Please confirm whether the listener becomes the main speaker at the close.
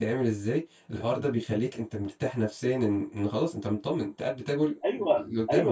Yes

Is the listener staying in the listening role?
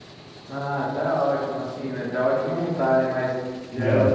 Yes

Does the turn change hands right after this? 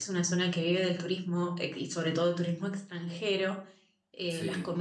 No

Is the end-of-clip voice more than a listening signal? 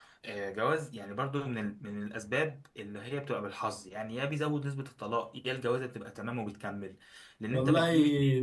Yes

